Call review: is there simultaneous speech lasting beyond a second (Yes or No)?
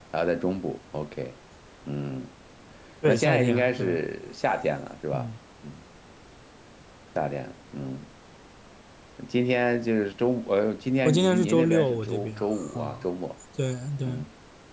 Yes